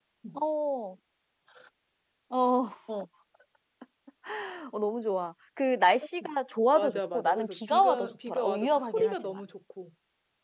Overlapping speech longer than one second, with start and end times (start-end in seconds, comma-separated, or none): 6.8-9.4